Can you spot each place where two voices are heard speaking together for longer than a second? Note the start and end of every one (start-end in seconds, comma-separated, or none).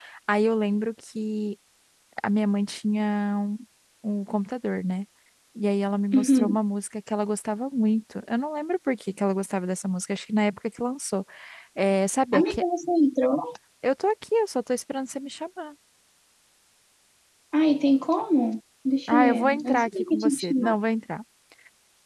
19.1-20.8